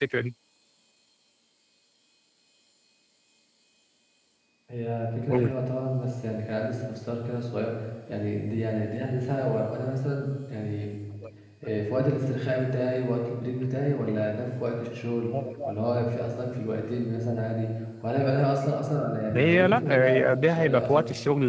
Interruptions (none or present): present